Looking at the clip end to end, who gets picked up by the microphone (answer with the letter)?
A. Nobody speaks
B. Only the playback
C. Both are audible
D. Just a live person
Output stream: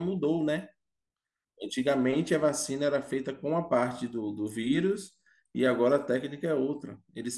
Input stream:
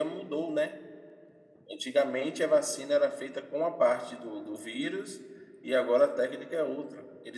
B